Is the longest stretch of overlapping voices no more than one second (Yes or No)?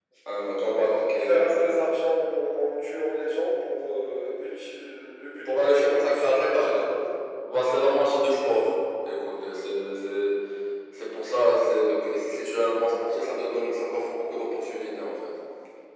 No